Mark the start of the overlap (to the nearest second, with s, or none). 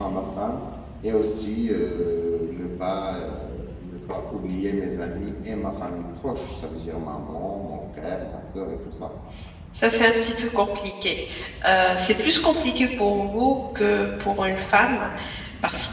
none